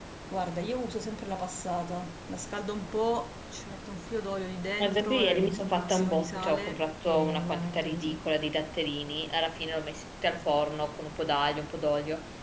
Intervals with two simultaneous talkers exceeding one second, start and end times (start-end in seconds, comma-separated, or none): 4.8-8.2